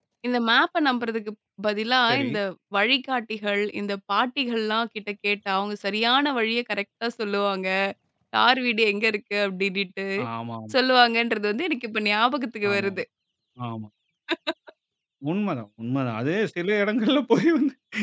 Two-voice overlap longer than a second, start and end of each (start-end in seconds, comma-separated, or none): none